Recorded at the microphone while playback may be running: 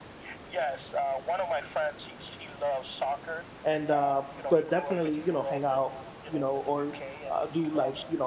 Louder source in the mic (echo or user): user